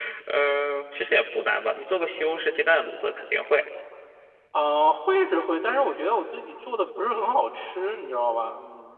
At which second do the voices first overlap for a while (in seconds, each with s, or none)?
none